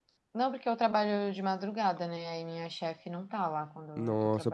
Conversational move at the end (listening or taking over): taking over